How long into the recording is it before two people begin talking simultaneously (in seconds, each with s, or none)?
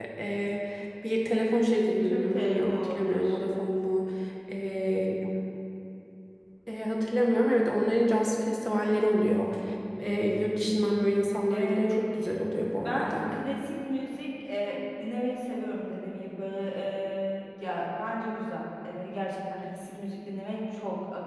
2.0 s